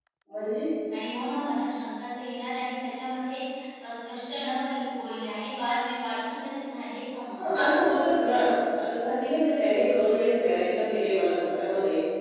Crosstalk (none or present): none